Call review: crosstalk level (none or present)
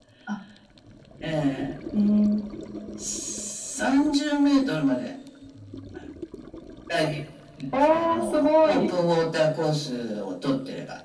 present